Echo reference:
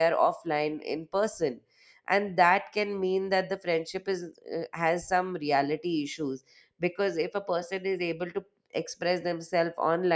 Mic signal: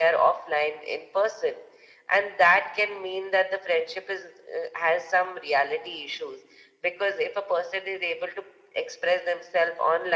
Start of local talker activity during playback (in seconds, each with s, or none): none